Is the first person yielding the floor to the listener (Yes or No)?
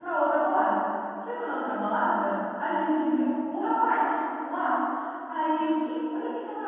No